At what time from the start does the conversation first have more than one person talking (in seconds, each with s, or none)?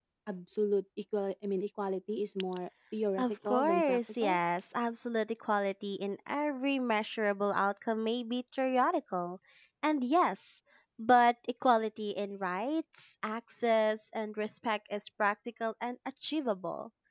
3.2 s